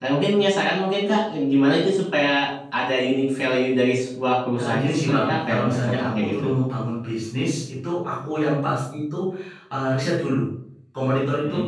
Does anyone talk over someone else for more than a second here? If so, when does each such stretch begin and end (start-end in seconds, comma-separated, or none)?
4.6-6.5